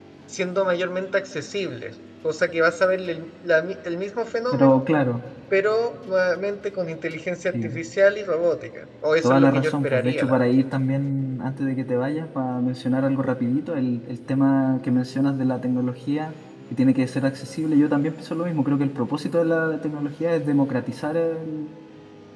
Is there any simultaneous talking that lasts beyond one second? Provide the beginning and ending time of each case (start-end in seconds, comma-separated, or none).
9.2-10.6